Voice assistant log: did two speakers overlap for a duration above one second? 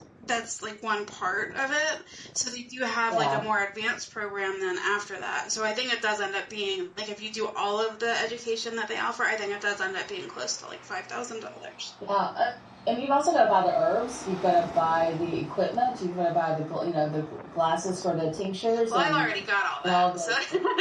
No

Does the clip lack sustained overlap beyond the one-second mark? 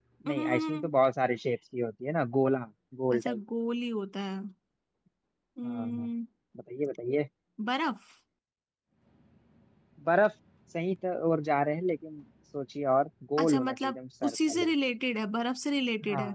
No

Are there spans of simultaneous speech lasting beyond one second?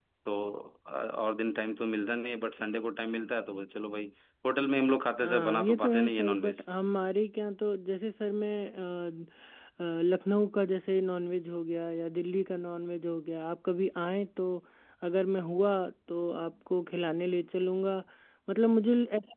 Yes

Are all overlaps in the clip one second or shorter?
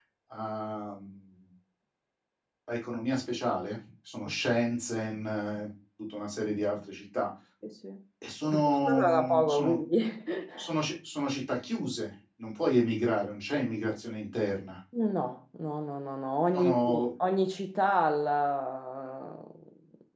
No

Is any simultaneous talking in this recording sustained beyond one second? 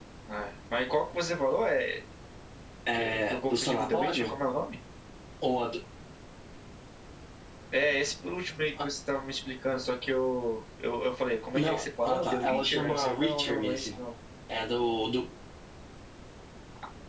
Yes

